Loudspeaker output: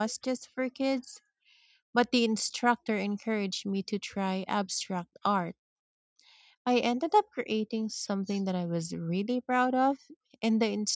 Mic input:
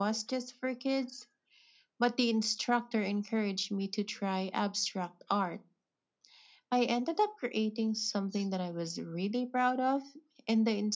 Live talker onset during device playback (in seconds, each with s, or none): none